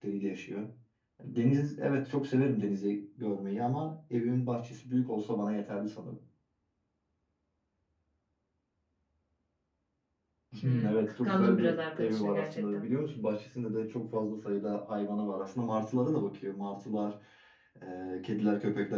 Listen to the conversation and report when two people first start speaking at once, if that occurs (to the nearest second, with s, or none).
11 s